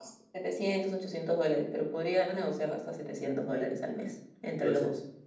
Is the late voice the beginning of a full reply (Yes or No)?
Yes